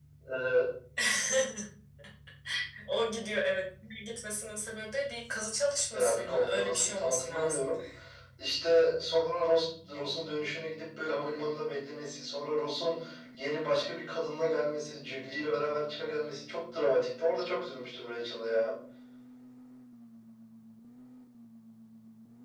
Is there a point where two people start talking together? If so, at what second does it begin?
5.9 s

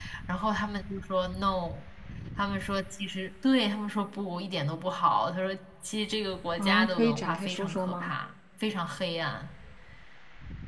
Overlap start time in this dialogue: 6.6 s

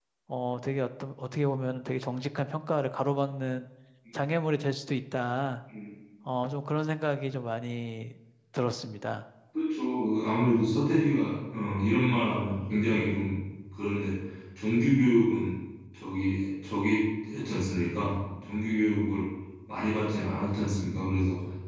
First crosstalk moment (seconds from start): none

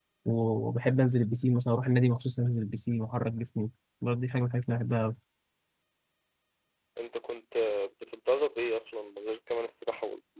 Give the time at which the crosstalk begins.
none

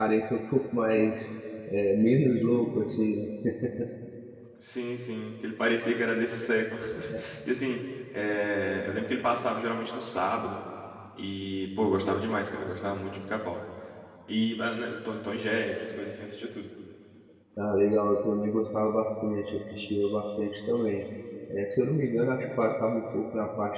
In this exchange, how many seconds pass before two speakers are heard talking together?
none

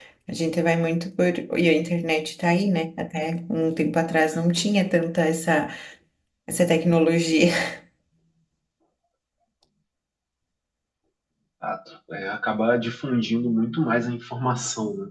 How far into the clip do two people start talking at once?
none

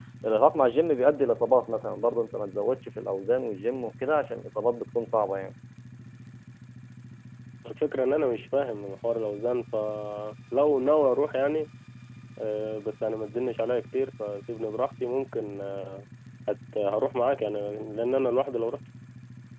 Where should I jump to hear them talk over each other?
none

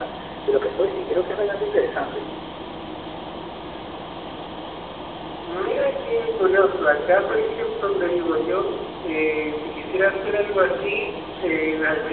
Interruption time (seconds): none

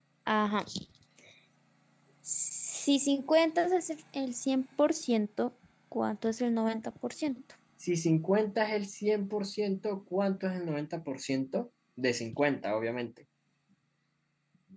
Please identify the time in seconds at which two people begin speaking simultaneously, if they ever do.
none

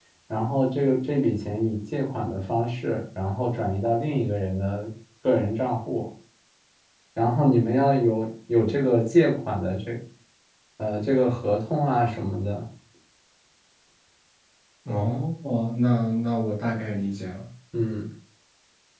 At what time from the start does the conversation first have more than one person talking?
none

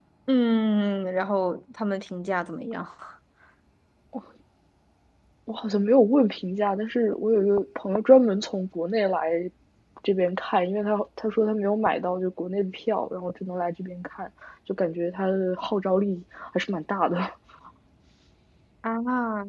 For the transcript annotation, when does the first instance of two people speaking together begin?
none

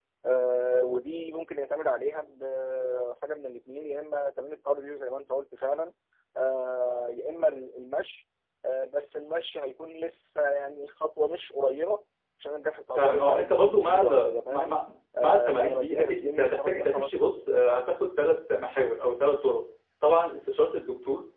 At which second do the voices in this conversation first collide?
12.9 s

